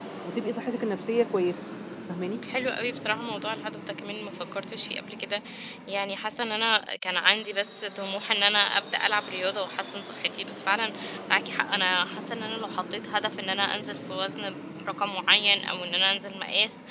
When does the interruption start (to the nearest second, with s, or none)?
none